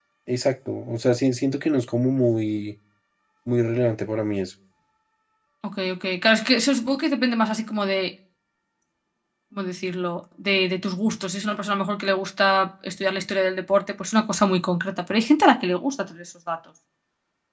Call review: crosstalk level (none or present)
none